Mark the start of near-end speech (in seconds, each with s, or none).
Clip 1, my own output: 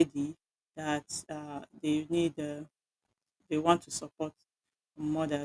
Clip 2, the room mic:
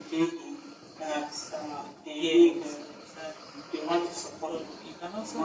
2.1 s